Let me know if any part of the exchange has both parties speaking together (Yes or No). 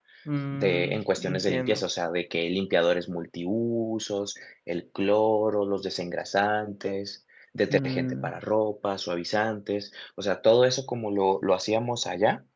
Yes